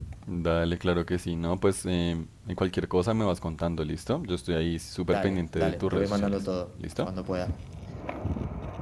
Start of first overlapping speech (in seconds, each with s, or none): 5.1 s